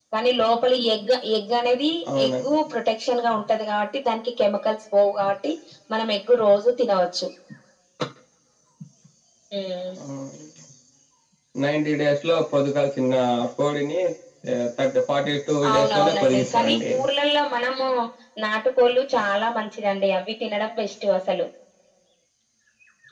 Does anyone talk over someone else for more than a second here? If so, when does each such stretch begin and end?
15.7-16.9

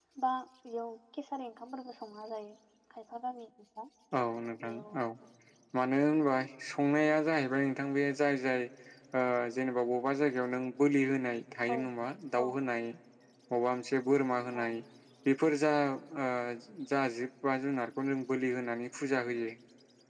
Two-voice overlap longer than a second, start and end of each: none

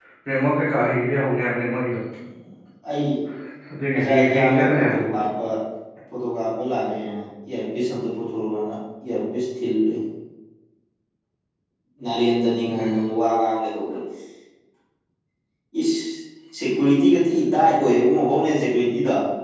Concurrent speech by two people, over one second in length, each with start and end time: 3.9-5.2

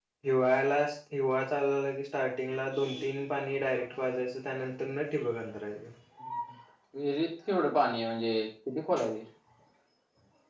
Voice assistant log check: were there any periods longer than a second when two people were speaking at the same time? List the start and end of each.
none

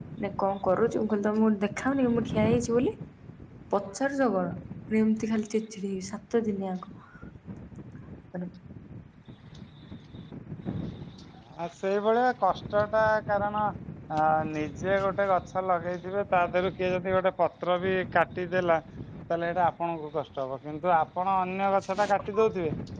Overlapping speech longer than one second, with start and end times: none

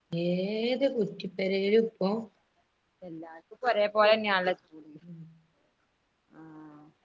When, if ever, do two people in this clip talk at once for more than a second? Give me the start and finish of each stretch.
none

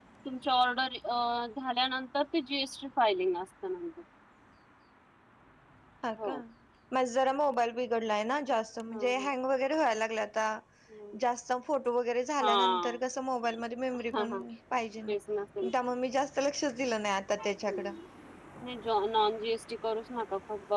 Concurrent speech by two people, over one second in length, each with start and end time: none

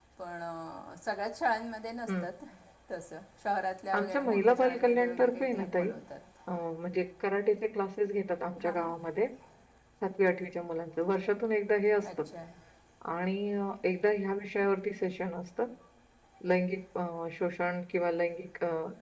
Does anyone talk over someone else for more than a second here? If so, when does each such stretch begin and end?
4.0-5.9

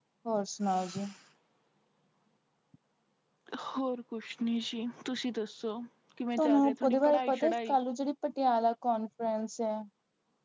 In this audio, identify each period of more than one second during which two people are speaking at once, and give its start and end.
6.4-7.8

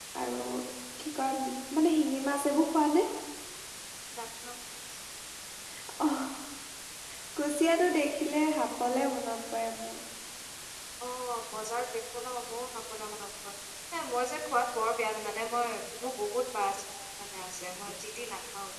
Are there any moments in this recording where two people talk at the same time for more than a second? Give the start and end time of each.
none

